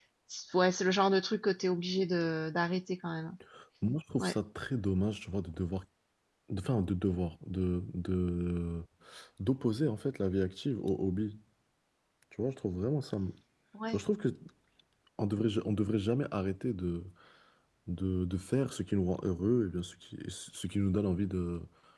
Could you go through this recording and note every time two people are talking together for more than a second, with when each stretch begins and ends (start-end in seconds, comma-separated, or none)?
none